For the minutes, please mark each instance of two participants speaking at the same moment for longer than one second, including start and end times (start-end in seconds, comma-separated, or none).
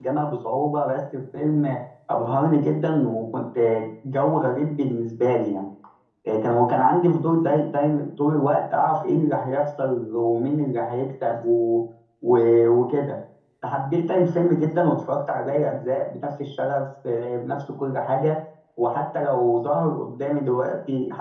none